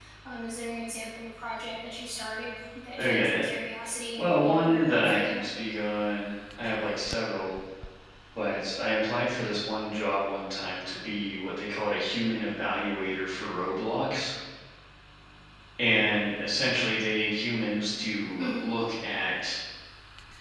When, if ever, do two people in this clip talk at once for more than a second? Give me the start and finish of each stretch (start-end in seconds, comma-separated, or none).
4.2-5.4